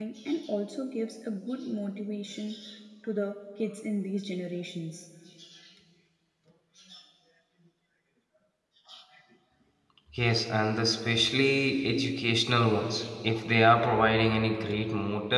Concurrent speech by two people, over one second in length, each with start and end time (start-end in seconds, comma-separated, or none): none